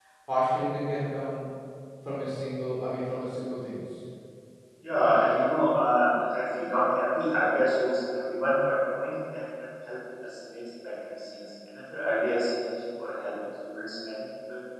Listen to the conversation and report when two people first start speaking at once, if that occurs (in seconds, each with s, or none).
none